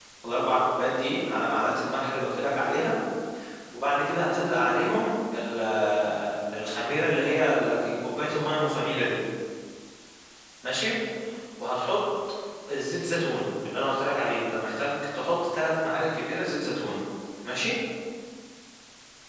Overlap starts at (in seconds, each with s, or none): none